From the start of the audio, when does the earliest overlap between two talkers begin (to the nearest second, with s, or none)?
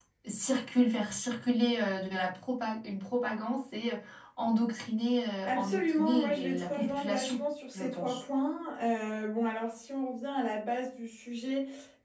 5 s